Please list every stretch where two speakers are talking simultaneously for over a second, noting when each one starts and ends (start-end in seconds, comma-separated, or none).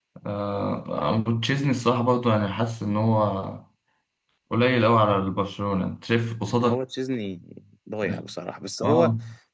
none